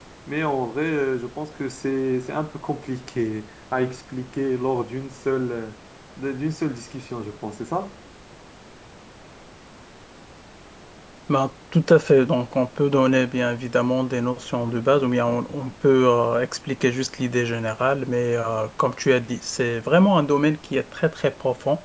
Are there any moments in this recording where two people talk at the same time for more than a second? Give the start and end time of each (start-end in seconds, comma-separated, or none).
none